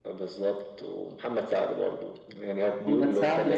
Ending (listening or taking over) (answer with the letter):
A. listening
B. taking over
B